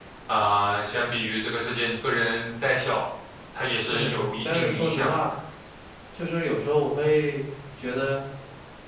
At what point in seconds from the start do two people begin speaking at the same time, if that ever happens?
3.9 s

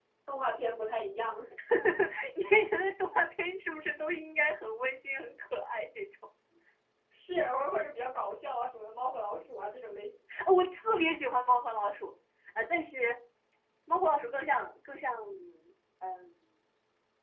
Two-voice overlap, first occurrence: none

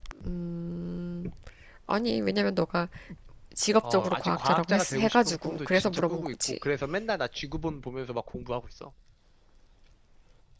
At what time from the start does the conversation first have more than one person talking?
3.9 s

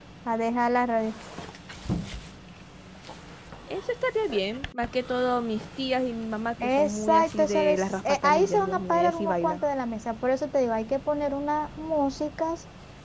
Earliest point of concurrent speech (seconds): 6.6 s

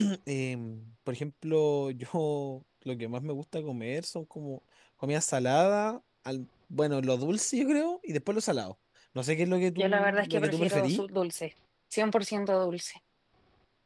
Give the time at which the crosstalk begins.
9.8 s

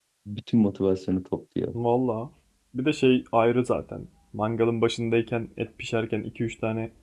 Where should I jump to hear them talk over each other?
none

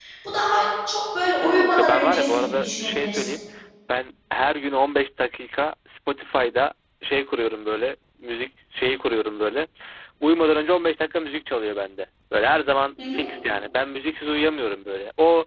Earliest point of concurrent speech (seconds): 1.4 s

